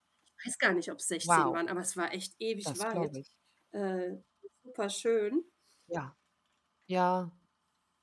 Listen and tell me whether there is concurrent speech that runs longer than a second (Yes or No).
No